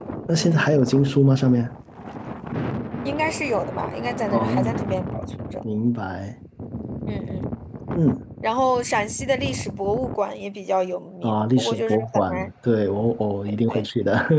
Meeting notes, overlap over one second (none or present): present